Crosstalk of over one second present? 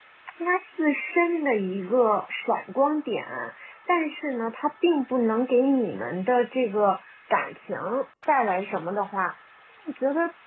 No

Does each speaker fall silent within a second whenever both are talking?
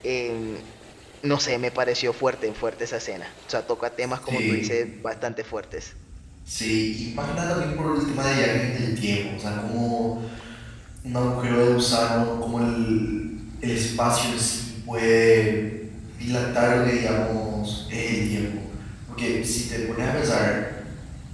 Yes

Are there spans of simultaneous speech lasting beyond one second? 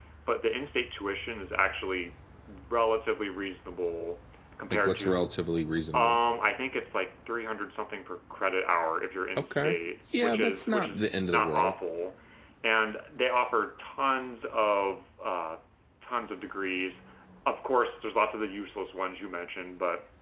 Yes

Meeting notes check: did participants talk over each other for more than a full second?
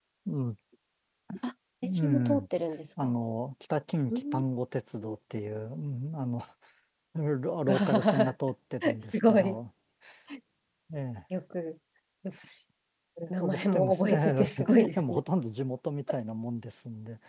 Yes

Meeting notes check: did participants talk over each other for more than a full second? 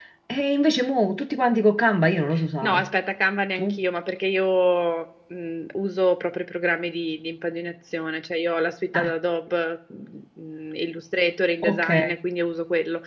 No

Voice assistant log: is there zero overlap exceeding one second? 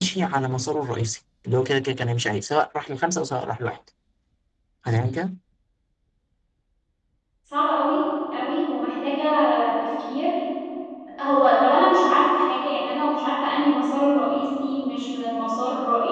Yes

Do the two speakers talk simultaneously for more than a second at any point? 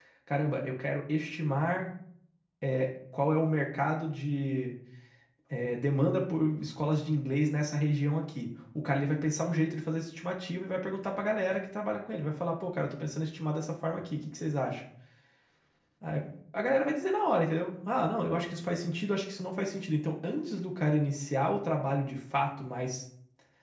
No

